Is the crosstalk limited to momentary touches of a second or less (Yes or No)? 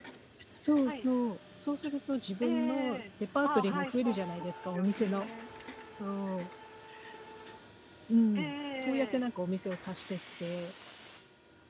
No